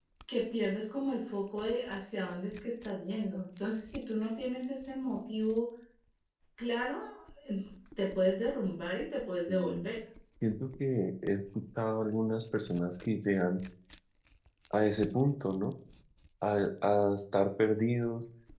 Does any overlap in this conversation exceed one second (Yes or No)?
No